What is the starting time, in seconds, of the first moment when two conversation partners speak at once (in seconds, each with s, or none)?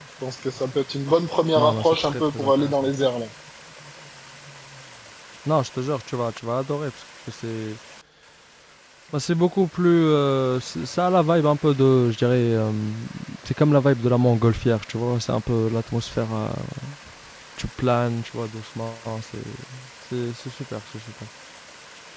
1.6 s